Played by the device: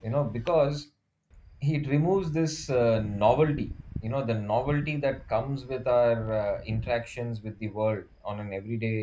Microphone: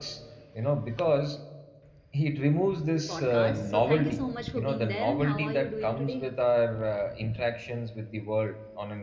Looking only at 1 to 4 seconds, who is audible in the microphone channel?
both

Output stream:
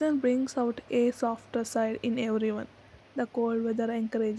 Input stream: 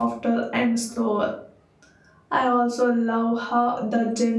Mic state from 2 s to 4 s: user only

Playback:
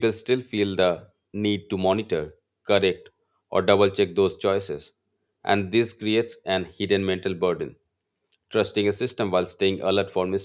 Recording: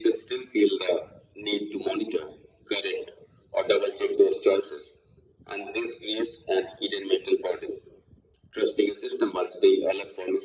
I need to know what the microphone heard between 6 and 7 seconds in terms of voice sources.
echo only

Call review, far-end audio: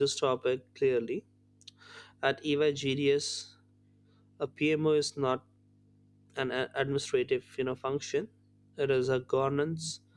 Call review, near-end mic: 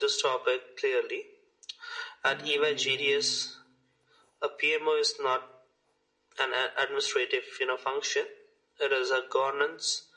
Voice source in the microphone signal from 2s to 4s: both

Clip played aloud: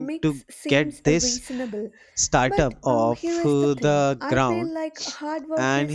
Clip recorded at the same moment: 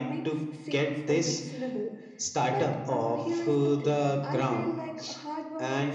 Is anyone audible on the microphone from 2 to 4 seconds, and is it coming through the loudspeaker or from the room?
echo only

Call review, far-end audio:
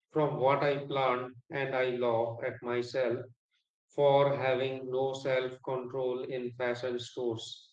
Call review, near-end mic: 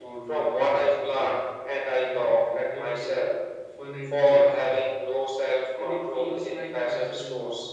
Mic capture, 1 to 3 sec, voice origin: both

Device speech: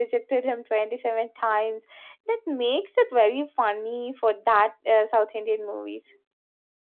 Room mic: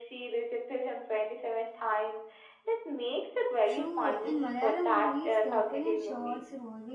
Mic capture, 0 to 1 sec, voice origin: echo only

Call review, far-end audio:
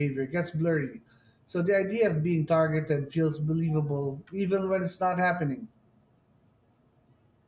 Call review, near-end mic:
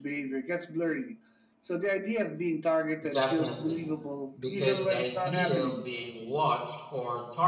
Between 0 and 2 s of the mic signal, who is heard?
echo only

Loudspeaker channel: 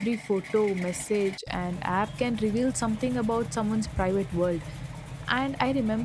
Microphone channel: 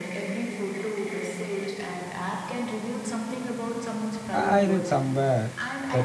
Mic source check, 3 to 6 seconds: both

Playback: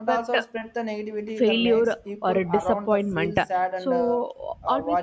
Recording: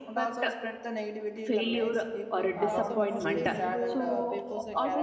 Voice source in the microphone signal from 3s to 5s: both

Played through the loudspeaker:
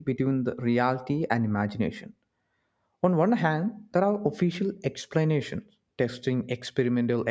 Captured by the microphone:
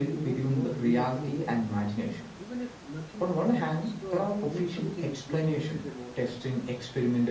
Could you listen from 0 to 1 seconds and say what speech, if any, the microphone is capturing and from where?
both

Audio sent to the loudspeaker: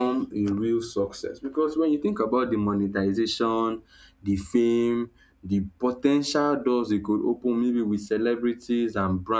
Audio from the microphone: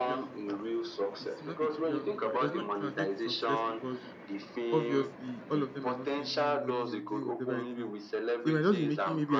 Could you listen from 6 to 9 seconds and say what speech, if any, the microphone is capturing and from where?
both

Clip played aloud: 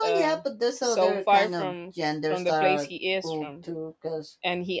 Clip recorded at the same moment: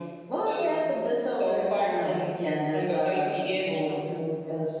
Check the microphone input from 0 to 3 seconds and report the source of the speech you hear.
echo only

